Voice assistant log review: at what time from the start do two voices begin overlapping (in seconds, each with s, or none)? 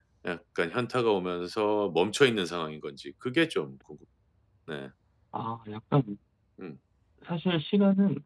none